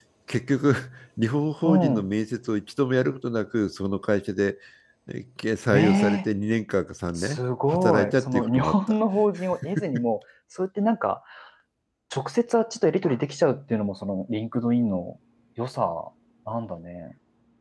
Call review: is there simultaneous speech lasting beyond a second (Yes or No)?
Yes